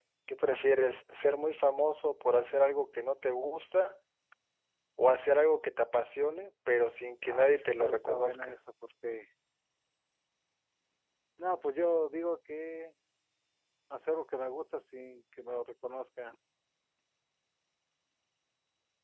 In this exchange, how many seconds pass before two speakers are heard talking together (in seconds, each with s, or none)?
7.2 s